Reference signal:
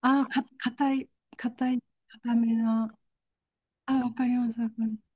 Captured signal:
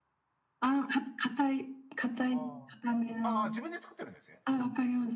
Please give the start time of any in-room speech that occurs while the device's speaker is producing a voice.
2 s

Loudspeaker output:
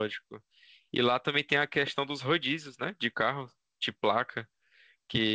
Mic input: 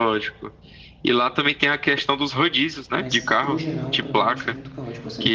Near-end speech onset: 3 s

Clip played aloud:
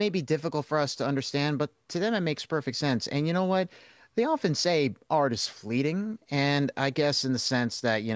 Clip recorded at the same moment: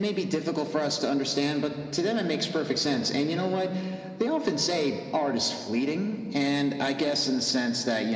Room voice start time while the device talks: none

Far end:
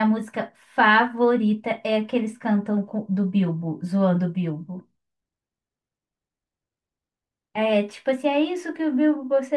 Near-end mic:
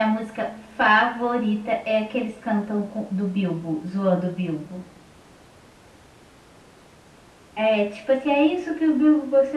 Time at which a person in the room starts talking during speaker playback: none

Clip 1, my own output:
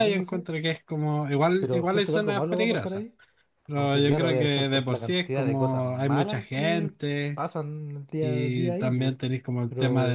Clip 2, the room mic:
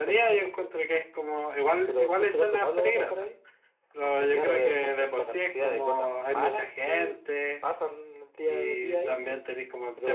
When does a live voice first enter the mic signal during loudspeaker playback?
none

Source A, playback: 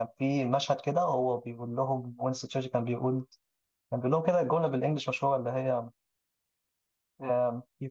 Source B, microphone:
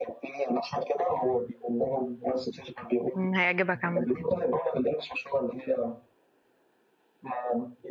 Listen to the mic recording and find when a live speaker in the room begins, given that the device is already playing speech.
3 s

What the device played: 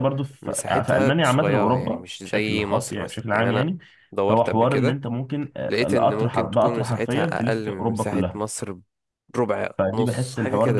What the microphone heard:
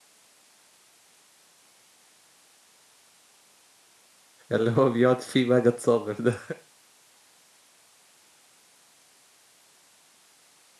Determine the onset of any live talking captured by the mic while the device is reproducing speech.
5 s

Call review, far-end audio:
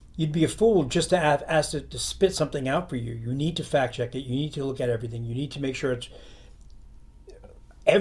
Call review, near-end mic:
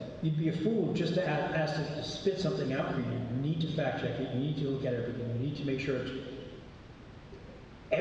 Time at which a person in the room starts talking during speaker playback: none

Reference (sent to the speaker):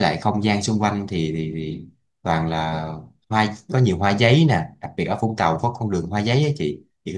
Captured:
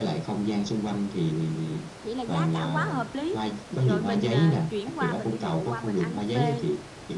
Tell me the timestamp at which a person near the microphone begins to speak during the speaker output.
2 s

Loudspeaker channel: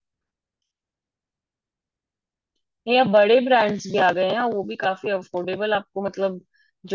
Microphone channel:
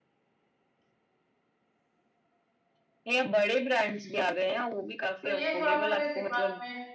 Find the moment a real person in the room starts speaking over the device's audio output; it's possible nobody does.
5 s

